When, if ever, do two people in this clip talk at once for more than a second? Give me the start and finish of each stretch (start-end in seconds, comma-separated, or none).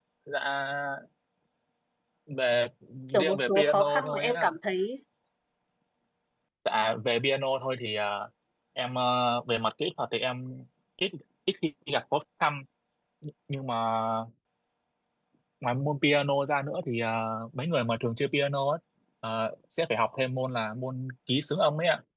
3.2-4.5